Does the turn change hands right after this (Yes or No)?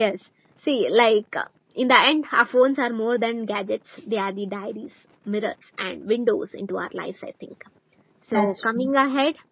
No